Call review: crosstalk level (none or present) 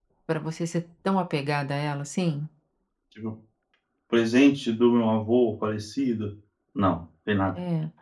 none